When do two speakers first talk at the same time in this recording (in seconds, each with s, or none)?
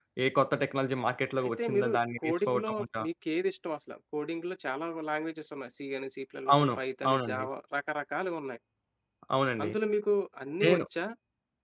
1.4 s